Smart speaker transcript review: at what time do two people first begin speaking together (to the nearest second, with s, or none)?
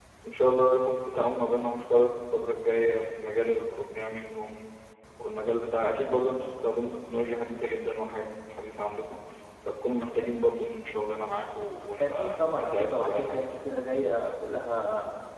12 s